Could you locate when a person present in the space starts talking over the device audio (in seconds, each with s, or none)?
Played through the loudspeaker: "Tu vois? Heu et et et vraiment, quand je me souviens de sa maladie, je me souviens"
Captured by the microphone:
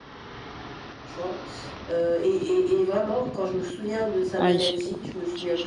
4.4 s